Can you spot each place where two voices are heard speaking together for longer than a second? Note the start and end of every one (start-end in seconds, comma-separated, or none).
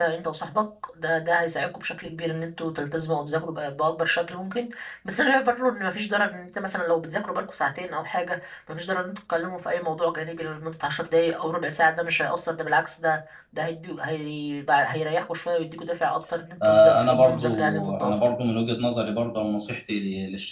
16.6-18.1